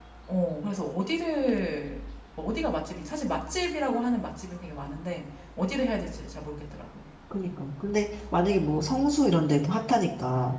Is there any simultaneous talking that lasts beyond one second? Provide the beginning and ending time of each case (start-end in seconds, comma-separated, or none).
none